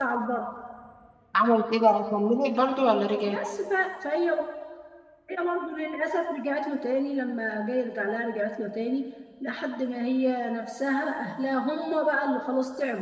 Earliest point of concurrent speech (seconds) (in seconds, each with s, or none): none